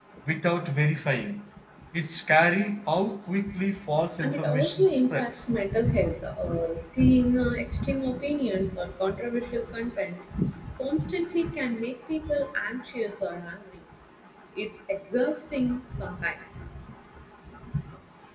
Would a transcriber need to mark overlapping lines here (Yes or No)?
Yes